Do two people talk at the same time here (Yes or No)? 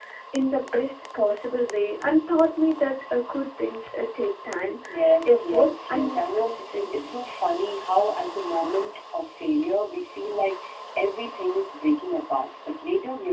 Yes